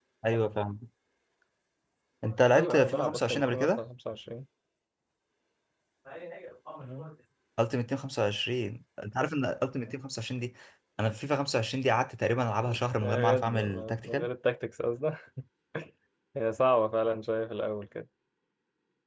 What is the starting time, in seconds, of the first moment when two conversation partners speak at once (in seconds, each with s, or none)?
2.5 s